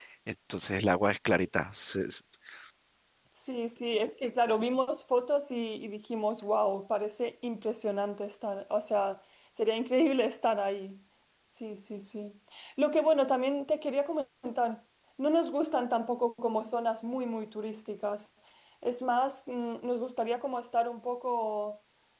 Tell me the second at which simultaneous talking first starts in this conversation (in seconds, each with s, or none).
none